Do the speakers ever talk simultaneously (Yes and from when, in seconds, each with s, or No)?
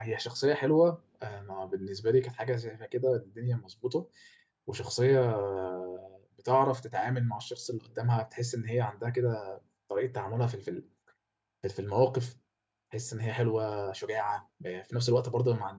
No